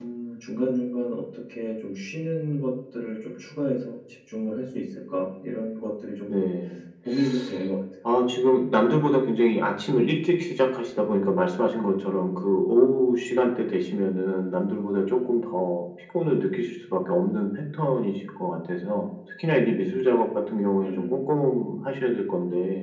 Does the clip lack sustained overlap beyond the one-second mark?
Yes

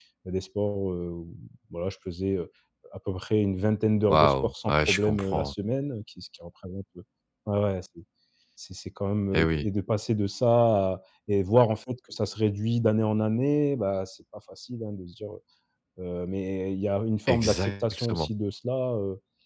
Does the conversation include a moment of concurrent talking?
Yes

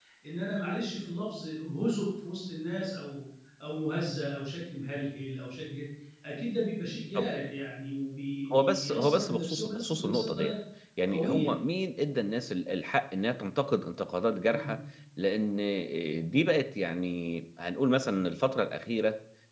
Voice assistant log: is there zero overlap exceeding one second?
No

